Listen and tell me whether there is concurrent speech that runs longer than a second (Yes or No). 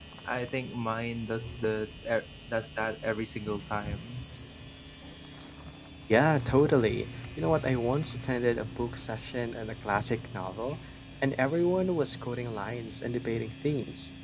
No